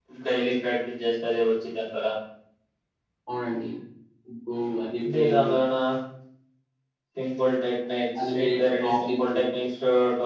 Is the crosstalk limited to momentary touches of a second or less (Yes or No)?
No